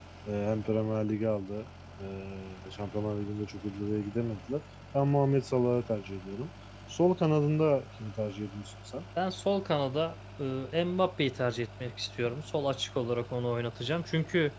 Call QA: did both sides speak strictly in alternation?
Yes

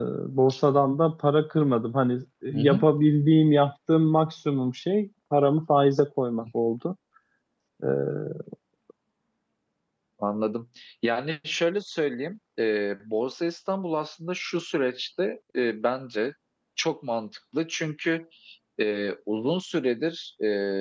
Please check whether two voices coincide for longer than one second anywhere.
No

